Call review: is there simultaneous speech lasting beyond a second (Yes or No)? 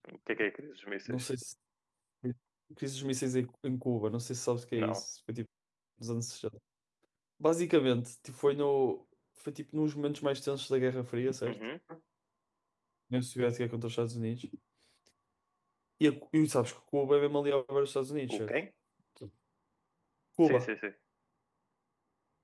No